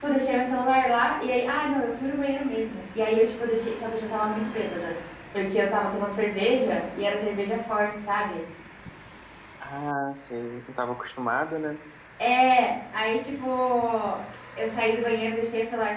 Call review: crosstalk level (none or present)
none